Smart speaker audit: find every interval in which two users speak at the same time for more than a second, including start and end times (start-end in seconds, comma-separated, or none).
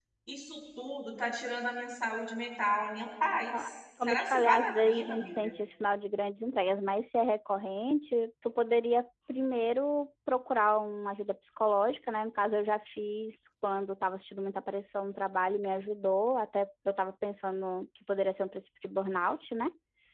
4.1-5.5